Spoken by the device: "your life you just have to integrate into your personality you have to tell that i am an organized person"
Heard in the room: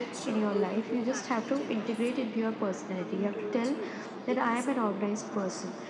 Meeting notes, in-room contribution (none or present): present